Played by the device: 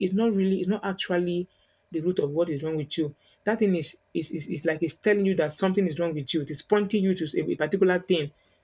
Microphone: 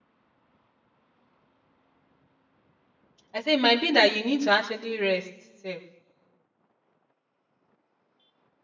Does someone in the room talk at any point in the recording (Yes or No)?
Yes